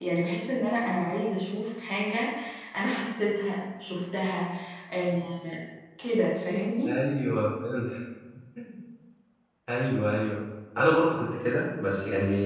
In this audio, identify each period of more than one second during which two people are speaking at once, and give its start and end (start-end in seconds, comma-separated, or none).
none